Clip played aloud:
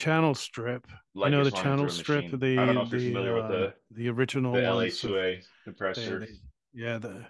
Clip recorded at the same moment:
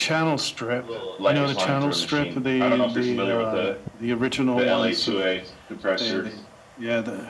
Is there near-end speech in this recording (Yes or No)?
Yes